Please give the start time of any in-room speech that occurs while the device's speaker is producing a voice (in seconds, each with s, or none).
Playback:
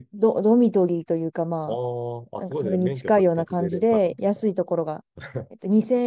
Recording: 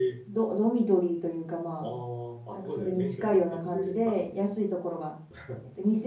none